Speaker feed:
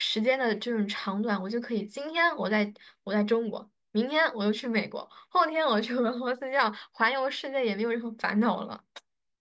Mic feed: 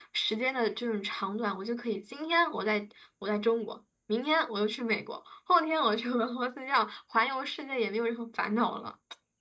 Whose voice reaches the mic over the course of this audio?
echo only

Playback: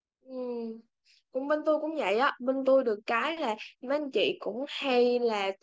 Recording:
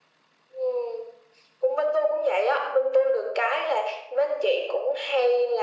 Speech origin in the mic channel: echo only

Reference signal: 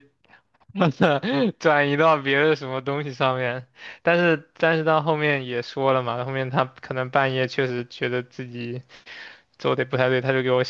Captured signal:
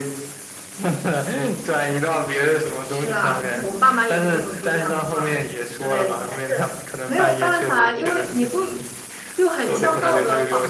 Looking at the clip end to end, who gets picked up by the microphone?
both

